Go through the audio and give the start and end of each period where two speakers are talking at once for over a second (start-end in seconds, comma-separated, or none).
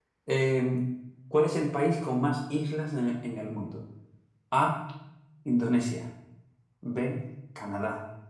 none